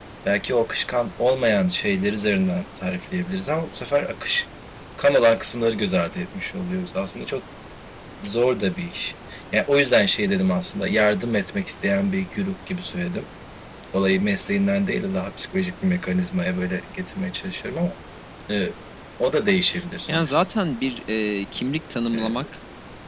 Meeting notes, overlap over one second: none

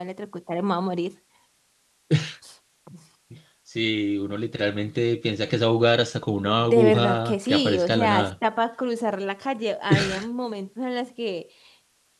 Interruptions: present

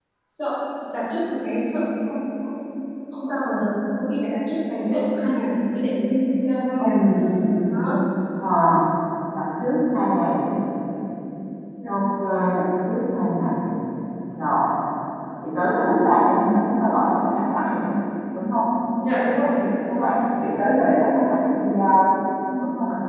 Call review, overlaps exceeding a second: none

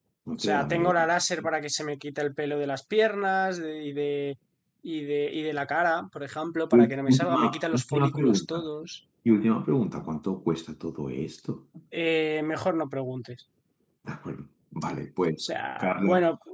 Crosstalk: present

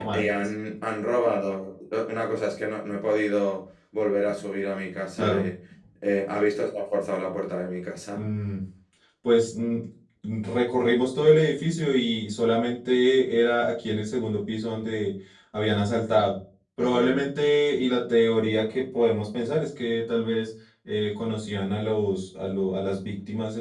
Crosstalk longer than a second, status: none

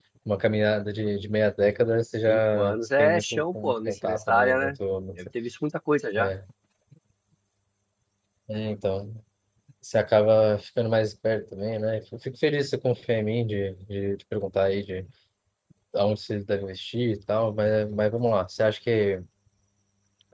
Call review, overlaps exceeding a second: present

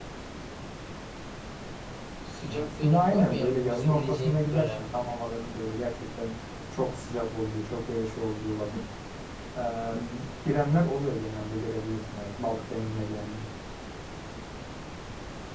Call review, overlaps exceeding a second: present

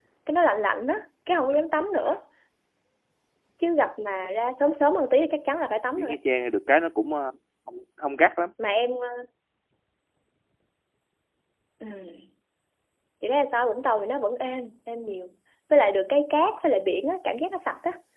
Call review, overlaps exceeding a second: none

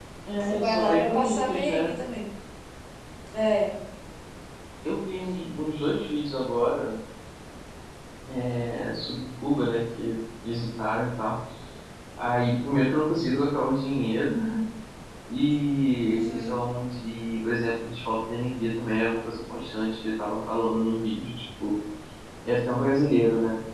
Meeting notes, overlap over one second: present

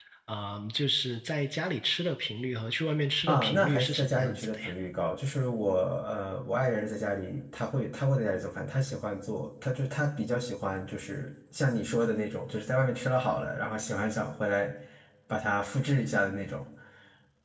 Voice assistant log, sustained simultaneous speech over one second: present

